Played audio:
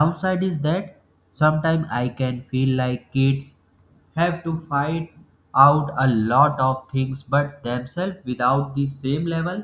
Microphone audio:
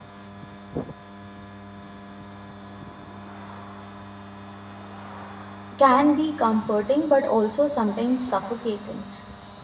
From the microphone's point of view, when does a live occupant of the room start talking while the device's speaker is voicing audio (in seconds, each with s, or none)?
5.8 s